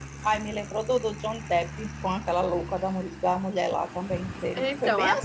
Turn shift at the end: Yes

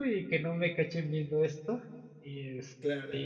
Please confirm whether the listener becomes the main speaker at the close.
No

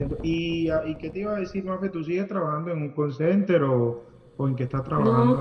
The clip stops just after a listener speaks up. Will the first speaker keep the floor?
No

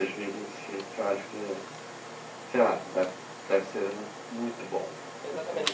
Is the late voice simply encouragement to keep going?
No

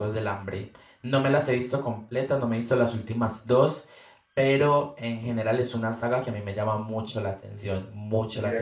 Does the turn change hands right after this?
Yes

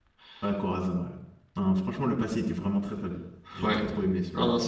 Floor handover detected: Yes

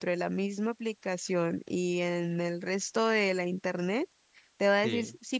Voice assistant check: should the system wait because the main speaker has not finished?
Yes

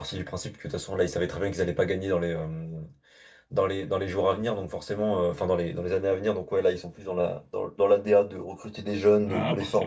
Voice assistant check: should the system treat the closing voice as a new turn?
Yes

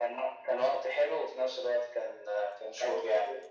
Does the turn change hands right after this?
Yes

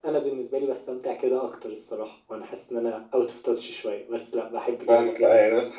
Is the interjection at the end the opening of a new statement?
Yes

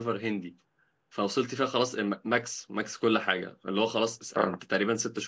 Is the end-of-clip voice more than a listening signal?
No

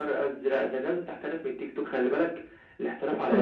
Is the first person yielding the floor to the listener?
No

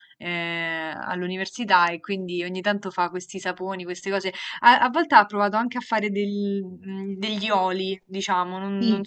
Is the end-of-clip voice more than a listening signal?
No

